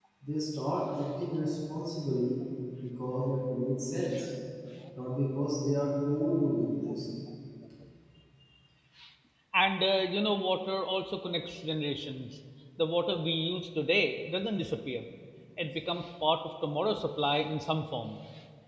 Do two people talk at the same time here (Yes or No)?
No